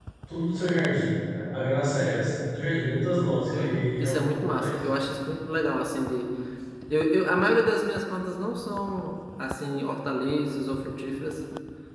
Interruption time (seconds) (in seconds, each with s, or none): 3.5 s